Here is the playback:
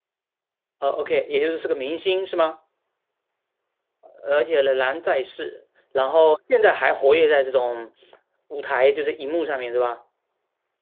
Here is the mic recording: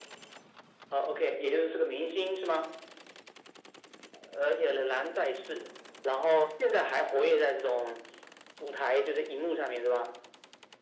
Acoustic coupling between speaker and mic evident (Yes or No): Yes